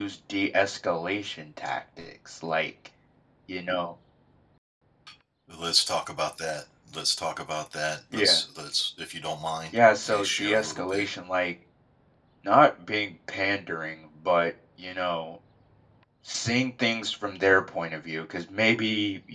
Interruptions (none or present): present